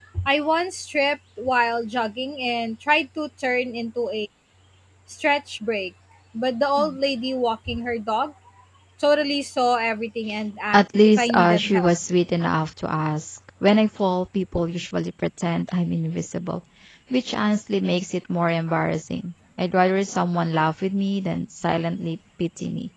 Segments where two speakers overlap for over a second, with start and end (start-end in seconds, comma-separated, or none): 10.7-12.0